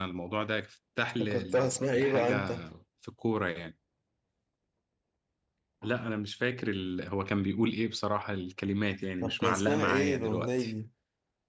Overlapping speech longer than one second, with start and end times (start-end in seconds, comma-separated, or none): 1.2-2.5, 9.2-10.7